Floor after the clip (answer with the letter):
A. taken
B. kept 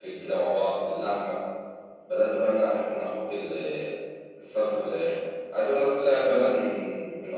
B